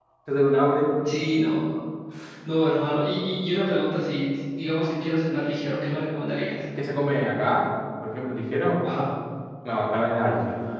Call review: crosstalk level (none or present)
none